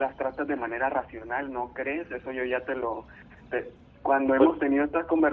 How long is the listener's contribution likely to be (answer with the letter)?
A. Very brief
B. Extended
A